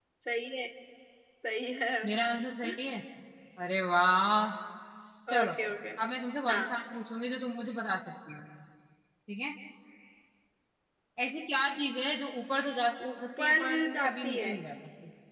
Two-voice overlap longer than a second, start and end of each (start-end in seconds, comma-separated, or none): 13.2-14.5